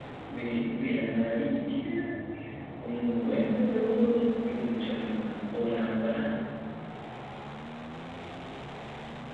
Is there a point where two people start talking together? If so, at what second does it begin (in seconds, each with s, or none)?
none